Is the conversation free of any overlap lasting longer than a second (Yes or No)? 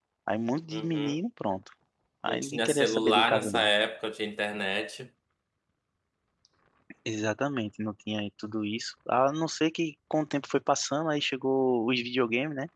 No